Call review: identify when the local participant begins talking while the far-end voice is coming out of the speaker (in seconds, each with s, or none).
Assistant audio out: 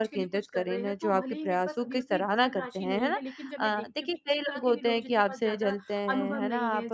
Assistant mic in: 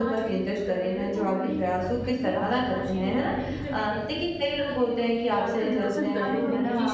5.3 s